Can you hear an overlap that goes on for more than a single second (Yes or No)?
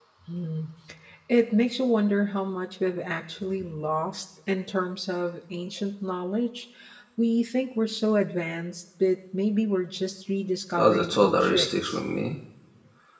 Yes